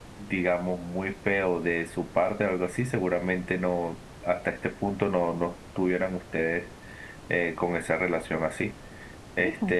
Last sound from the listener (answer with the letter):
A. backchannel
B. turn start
A